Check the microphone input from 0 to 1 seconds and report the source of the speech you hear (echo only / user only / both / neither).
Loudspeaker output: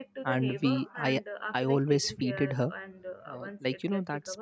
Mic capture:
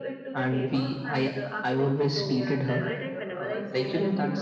echo only